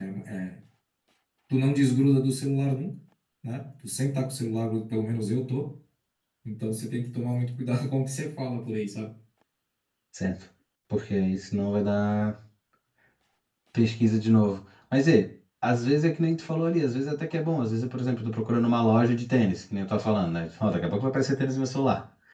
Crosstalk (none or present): none